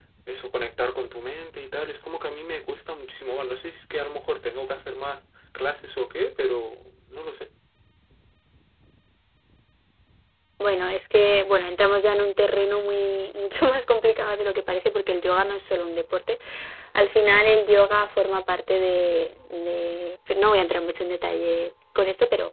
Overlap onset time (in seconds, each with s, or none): none